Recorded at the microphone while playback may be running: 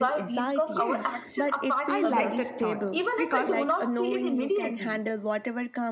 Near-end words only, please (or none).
Yes, I like that thought because